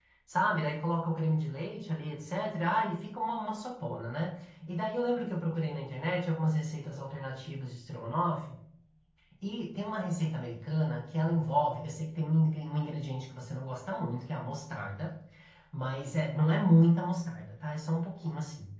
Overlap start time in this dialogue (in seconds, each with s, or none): none